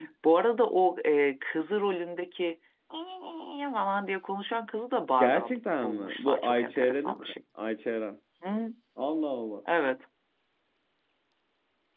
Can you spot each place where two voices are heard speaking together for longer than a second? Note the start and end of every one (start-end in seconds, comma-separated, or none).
5.2-7.2